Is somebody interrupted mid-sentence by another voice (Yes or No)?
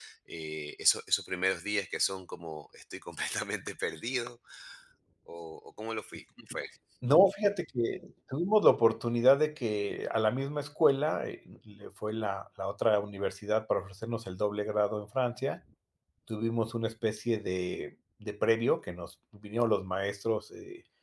No